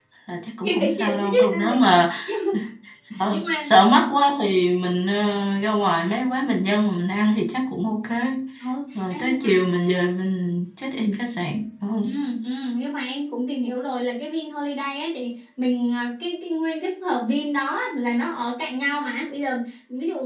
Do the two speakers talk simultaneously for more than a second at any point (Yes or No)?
Yes